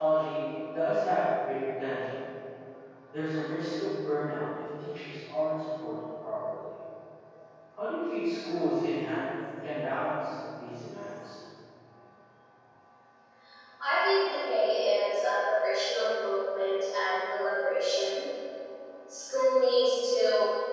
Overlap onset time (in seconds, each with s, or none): none